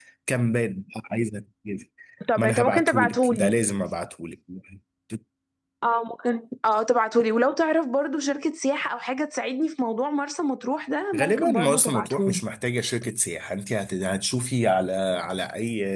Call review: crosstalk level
present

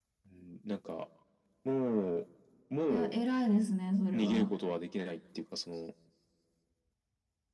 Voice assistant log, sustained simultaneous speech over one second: none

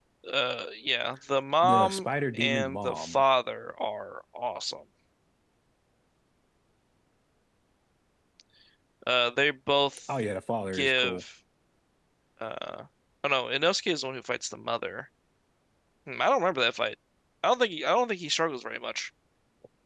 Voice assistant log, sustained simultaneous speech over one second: present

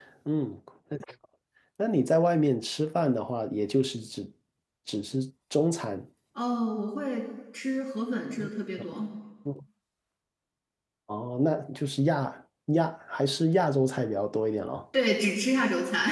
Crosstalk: none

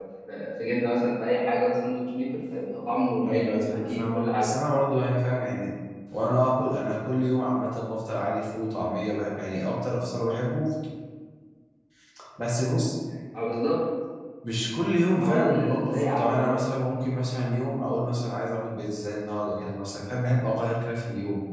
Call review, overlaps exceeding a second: present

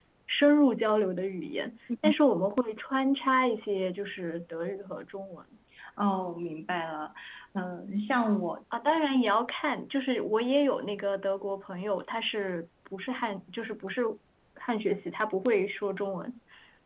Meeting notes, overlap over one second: none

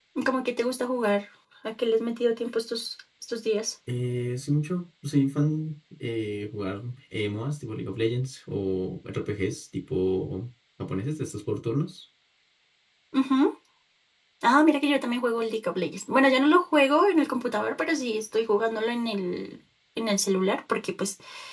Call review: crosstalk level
none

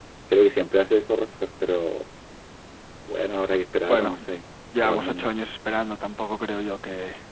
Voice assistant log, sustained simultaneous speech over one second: none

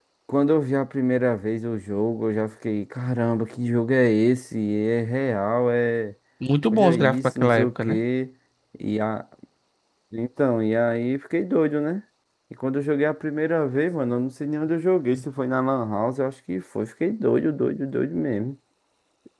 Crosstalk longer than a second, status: present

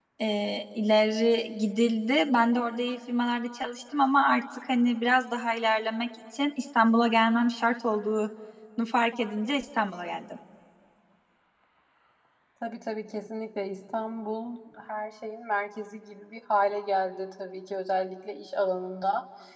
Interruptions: none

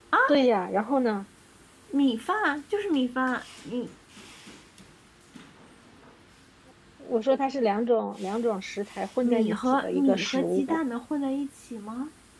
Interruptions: present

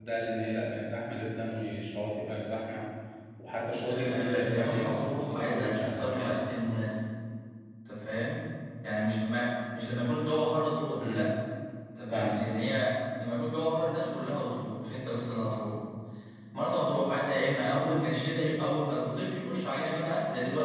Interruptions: present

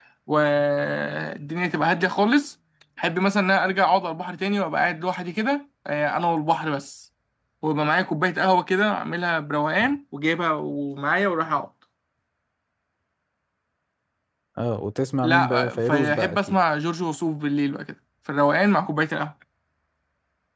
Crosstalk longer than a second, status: present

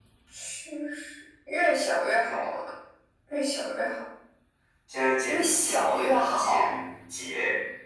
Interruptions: present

